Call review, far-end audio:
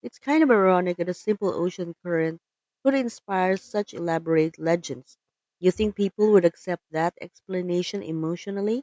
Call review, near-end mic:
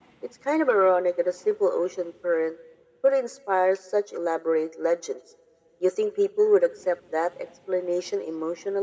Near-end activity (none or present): none